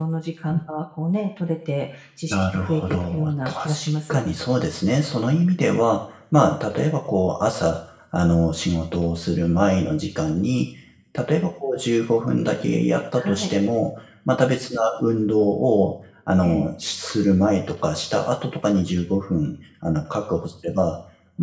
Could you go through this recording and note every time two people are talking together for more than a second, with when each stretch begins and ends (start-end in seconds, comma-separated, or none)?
2.3-3.7